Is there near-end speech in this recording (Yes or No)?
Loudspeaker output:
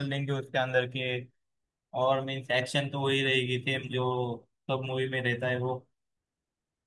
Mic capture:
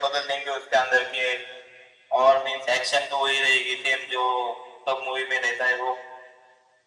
No